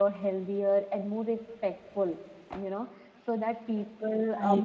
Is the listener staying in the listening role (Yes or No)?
Yes